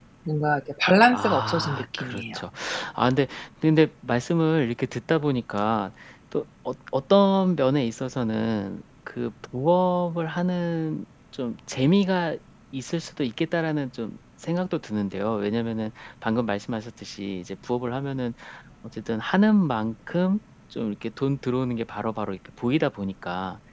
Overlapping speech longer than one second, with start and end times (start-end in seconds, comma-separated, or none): 1.1-2.4